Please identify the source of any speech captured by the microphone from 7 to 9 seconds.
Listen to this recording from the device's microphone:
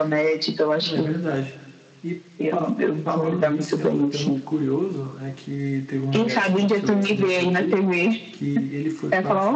both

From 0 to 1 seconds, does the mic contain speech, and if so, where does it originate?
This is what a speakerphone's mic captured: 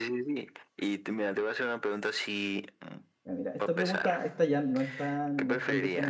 echo only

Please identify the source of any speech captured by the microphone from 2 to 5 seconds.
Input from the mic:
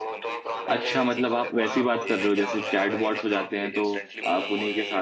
both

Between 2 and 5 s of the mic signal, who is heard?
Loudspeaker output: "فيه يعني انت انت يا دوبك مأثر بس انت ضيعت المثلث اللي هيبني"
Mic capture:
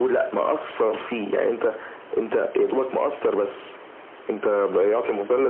echo only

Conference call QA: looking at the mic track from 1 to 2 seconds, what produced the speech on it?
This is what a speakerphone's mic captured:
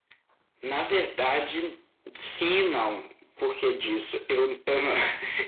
echo only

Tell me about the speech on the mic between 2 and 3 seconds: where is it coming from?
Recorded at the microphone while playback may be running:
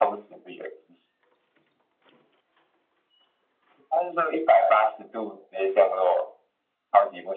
neither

